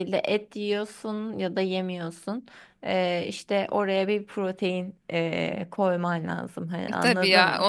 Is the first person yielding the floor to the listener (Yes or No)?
Yes